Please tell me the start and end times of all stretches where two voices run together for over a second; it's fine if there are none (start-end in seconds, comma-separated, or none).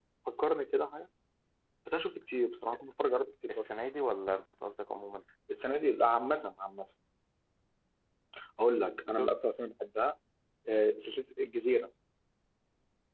none